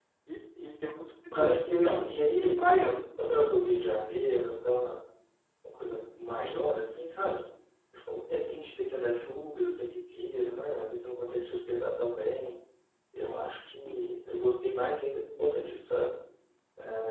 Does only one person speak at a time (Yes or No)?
No